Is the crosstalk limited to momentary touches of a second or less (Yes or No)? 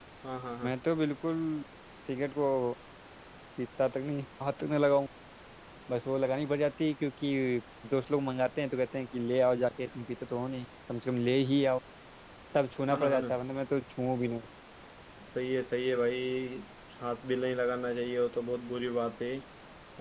Yes